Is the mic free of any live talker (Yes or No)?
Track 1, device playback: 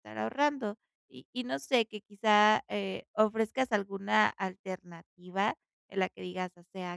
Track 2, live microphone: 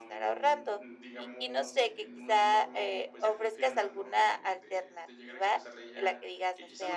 No